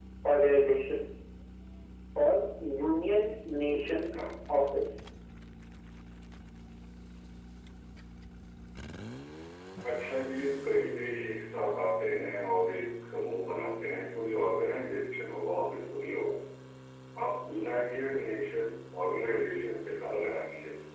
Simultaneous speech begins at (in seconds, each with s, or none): none